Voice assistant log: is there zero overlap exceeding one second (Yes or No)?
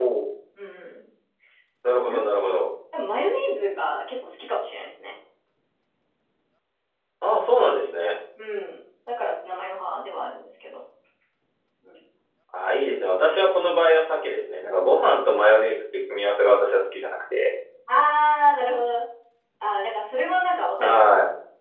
Yes